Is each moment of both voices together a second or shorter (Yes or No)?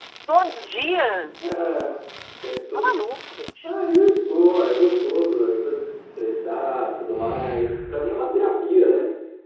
Yes